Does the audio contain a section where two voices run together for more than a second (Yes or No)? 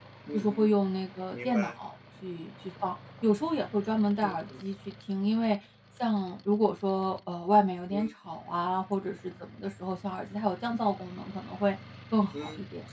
No